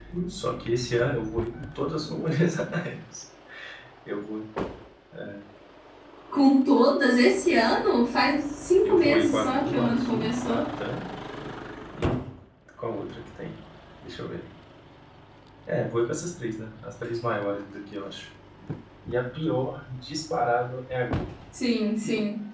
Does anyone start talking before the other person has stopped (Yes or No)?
Yes